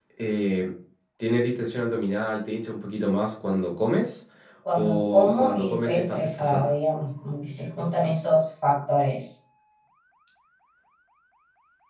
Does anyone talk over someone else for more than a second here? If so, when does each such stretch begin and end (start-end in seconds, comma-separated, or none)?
4.8-6.7